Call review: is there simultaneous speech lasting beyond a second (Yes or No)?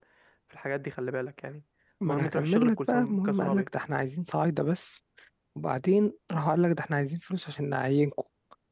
Yes